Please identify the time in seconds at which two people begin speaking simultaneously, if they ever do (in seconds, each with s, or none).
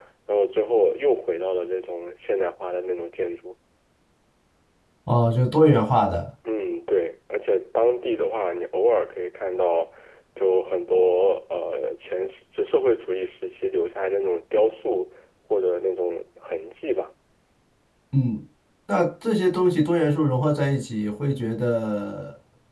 none